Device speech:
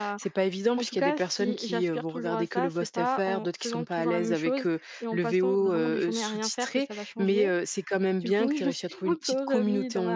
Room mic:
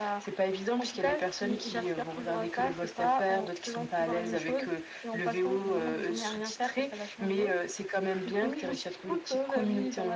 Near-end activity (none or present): none